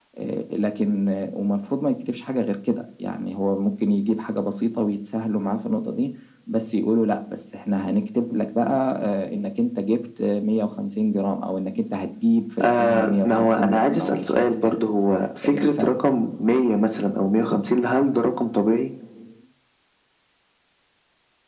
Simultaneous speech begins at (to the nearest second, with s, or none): 13 s